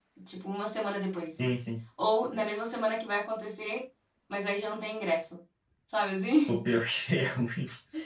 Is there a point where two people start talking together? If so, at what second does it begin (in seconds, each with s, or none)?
none